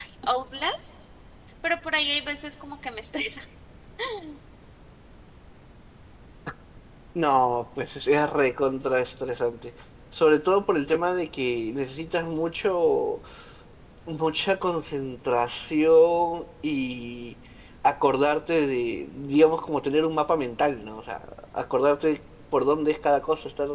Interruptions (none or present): none